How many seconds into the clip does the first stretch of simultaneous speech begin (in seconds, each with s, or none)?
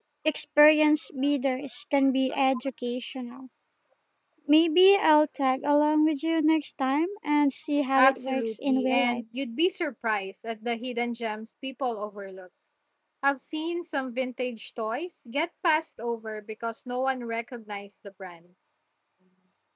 8.0 s